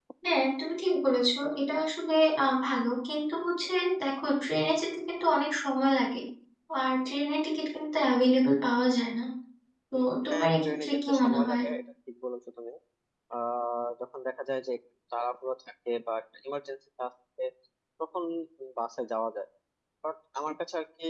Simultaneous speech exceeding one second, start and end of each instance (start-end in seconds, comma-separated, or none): 10.3-11.6